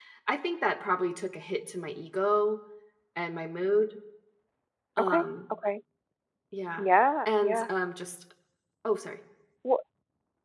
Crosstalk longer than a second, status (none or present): none